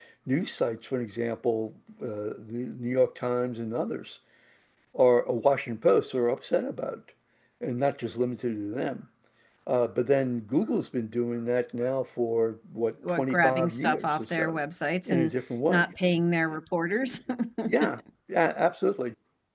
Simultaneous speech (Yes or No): Yes